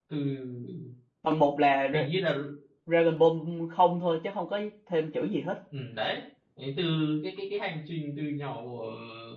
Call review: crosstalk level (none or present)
none